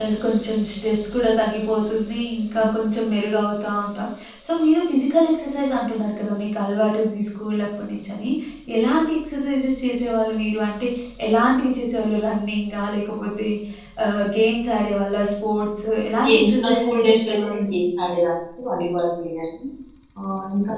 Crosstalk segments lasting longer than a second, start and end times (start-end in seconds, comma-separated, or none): 16.2-17.7